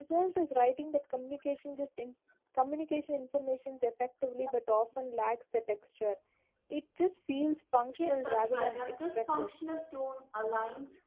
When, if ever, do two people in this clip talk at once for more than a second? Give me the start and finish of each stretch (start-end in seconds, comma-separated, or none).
8.0-9.5